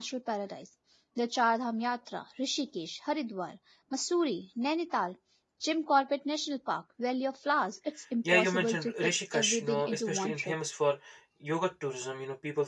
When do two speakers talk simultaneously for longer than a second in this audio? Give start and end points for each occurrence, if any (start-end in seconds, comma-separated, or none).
8.3-10.6